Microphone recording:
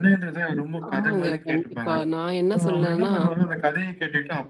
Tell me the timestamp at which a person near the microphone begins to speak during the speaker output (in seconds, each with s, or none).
0.9 s